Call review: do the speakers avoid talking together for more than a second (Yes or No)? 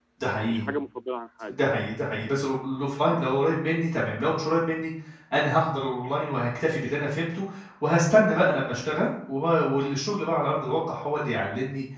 Yes